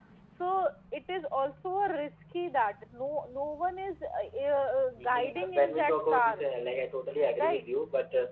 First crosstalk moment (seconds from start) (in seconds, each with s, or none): 5.0 s